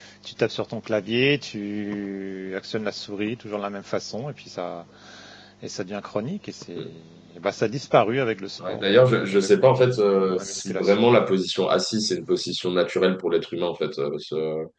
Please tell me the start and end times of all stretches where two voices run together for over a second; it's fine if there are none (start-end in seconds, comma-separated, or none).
8.7-11.2